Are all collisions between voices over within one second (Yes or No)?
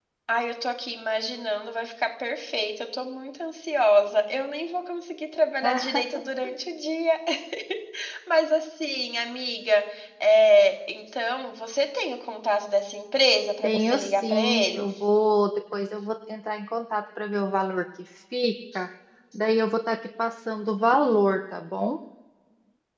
No